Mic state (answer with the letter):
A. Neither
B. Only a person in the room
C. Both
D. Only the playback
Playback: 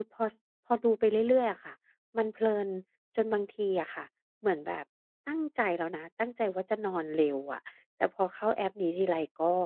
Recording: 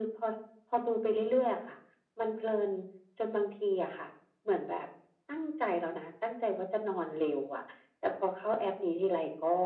D